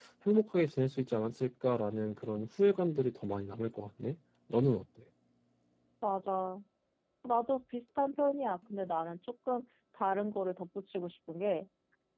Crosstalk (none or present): none